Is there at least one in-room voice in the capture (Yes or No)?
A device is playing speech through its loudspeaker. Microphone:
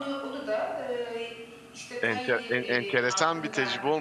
Yes